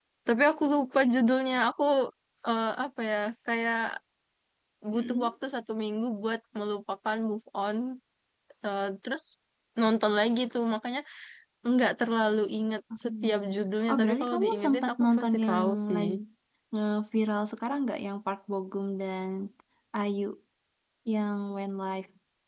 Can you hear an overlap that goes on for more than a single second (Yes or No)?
Yes